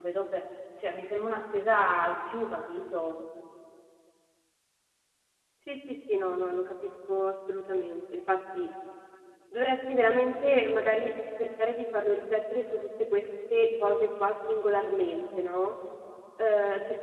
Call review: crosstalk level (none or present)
none